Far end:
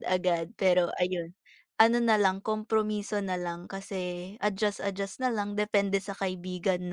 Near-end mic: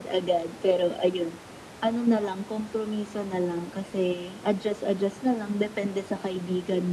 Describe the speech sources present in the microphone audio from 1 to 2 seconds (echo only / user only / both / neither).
echo only